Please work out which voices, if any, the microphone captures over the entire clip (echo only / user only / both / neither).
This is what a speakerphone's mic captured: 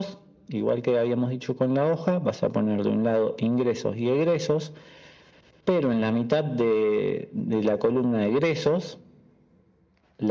echo only